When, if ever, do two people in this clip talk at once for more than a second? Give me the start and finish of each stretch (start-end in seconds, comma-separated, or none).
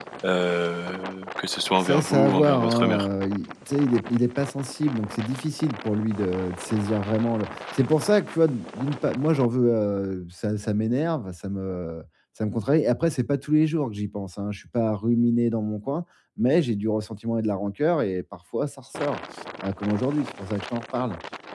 1.8-3.0